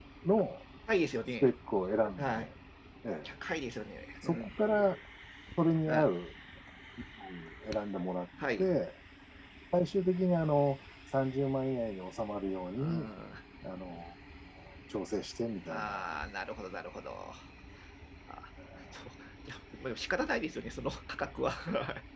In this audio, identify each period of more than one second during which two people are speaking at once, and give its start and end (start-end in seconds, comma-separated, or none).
none